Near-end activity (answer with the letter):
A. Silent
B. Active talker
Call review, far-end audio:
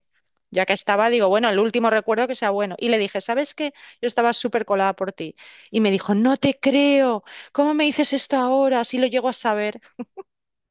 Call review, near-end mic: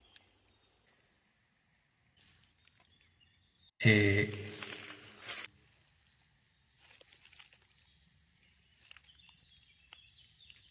B